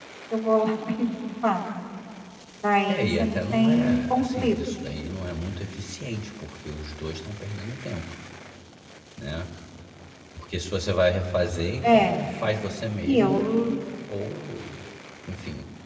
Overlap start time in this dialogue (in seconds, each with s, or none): 2.9 s